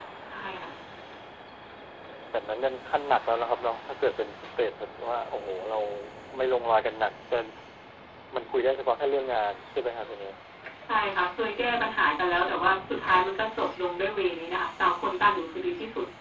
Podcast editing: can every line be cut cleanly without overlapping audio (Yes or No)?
Yes